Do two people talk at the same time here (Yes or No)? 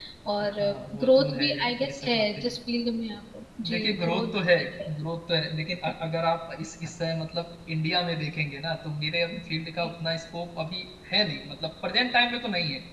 Yes